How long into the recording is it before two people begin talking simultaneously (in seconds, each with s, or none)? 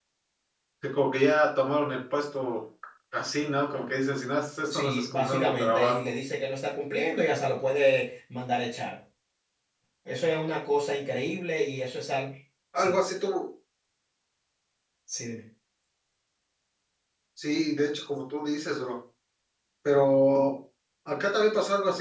4.7 s